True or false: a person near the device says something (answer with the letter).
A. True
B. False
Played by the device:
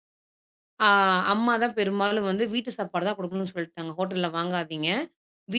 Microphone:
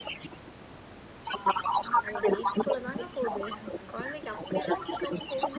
A